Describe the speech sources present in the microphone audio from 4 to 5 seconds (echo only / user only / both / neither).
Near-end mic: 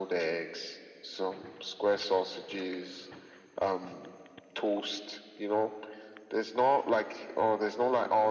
echo only